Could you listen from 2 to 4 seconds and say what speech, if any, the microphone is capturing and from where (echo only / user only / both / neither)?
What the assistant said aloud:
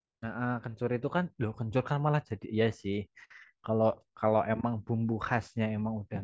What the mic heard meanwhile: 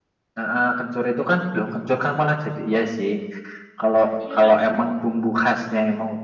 echo only